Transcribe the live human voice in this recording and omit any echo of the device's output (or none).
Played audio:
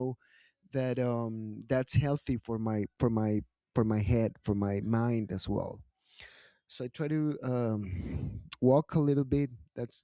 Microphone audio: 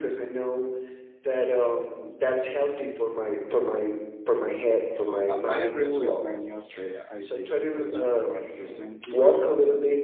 Oh, I I agree with many of the ideas that you are presenting here.